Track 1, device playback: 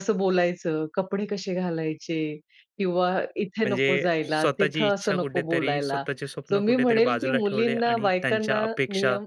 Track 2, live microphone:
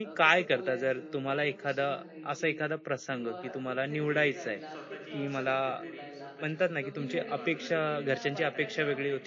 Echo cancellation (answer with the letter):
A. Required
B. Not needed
A